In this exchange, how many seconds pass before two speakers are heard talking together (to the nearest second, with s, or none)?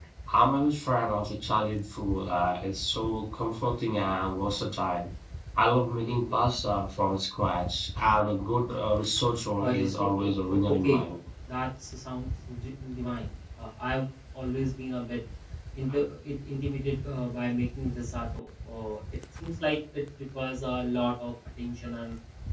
10 s